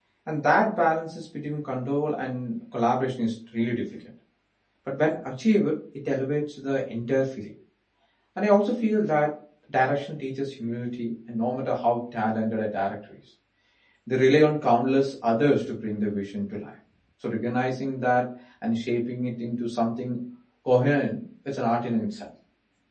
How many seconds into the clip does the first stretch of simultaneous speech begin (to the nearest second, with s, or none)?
none